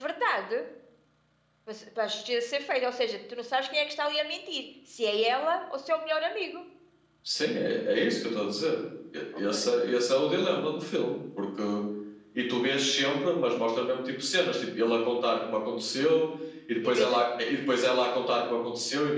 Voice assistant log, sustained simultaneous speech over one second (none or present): none